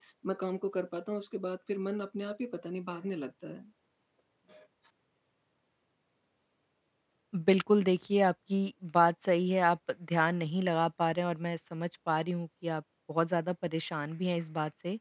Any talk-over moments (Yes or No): No